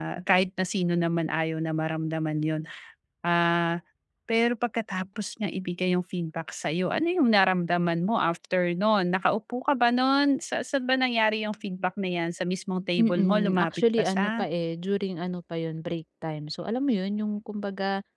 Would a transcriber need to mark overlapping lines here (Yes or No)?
Yes